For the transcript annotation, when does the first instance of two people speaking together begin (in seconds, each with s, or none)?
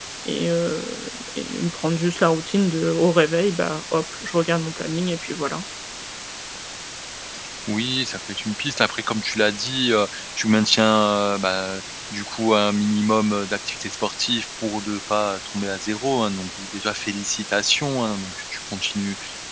none